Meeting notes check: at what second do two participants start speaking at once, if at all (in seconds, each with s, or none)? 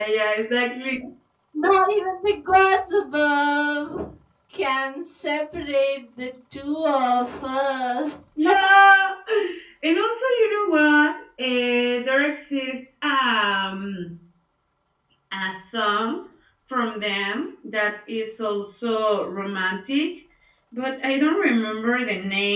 none